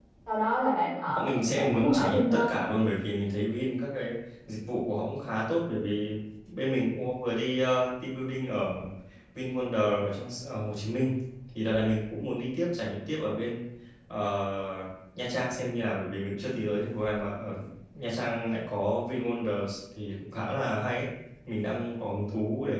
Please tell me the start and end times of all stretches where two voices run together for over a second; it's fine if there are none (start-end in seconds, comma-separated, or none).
1.2-2.7